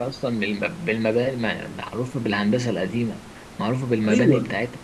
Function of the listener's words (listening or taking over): listening